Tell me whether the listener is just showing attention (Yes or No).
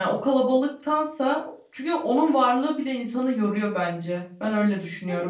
No